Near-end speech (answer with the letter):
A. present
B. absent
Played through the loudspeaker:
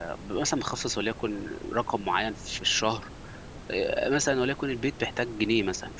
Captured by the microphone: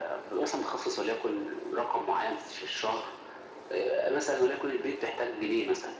B